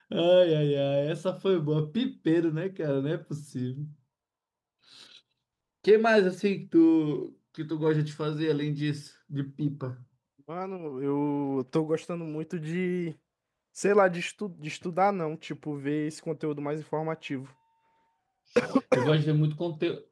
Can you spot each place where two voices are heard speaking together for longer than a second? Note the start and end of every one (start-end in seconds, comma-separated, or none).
none